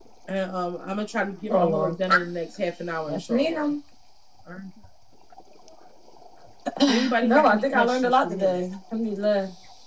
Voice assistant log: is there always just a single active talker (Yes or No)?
No